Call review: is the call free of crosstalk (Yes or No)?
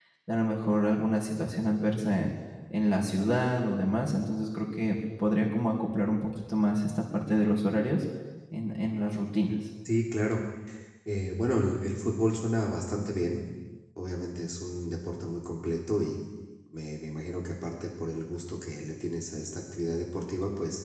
Yes